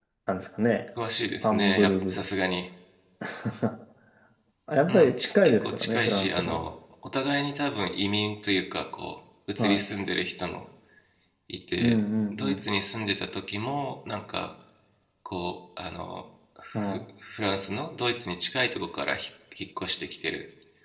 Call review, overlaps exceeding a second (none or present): present